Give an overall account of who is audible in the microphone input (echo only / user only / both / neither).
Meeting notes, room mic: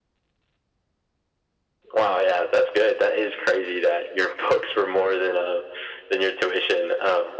echo only